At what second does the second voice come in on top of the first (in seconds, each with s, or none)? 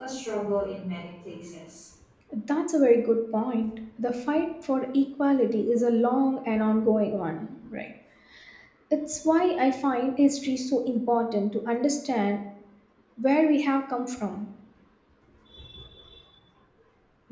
none